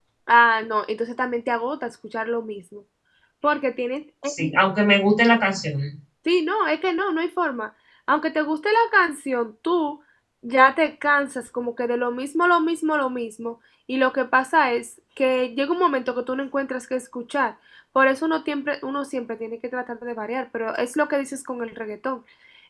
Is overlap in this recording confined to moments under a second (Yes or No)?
Yes